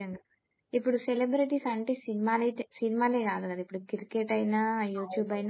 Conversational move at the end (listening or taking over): listening